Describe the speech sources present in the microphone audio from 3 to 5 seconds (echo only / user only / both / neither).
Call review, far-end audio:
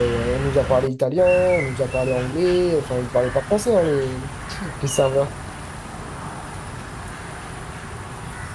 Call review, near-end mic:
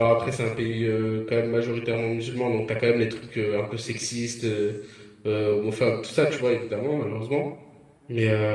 user only